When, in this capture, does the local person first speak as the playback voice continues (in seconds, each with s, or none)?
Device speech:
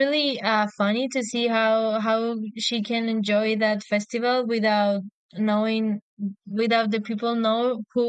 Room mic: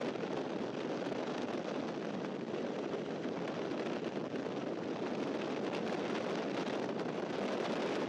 none